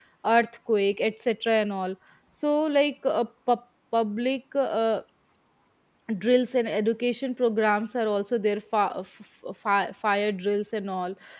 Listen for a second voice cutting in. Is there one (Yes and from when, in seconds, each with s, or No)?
No